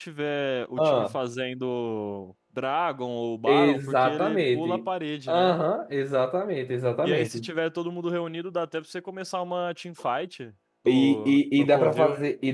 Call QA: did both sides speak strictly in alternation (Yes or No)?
No